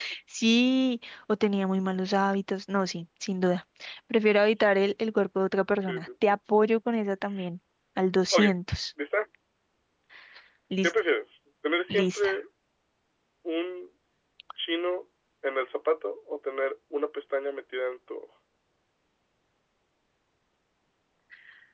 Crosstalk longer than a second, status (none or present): none